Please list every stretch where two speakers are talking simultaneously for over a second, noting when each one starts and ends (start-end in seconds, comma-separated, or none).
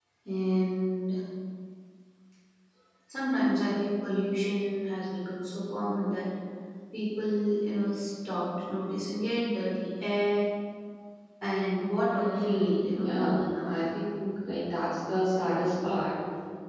12.2-13.7